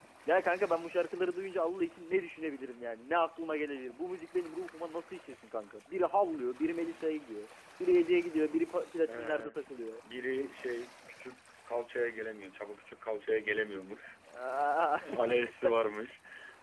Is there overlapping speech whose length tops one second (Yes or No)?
No